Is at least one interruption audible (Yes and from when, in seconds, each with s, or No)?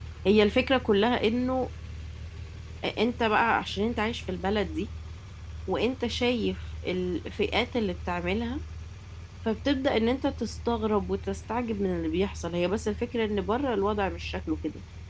No